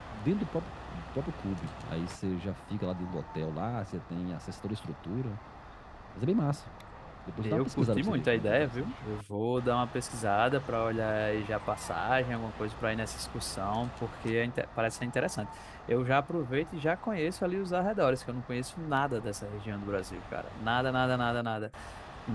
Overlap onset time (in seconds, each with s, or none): 7.5 s